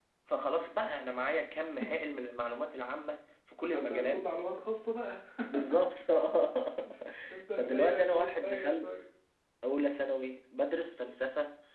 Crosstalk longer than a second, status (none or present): present